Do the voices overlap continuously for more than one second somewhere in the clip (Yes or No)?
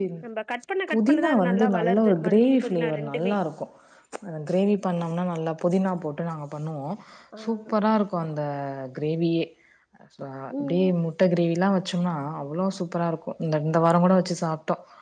Yes